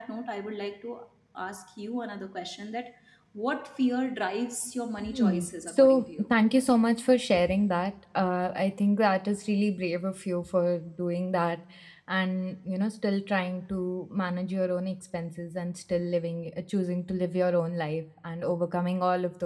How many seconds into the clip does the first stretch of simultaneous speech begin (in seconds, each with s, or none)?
5.0 s